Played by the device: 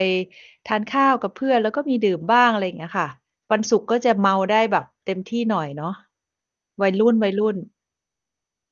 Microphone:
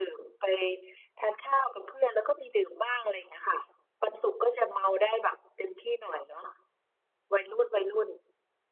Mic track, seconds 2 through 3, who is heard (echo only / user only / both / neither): echo only